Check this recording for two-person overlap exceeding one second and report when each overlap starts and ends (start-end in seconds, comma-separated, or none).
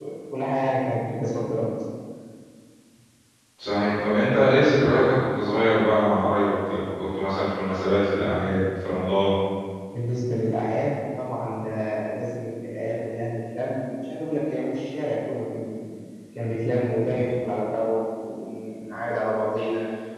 none